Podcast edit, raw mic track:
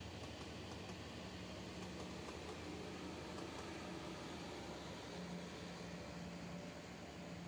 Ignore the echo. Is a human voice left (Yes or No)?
No